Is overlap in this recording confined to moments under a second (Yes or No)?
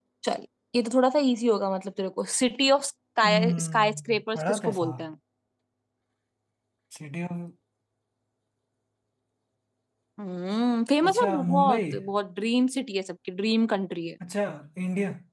No